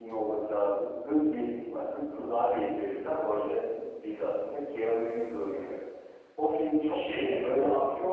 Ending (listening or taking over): listening